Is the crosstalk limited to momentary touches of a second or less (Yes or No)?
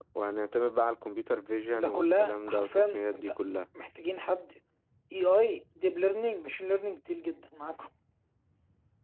No